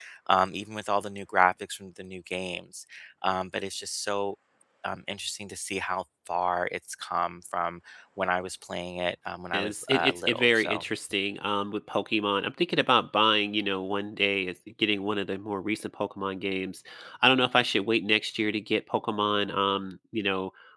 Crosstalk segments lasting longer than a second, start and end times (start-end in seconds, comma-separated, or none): 9.5-10.8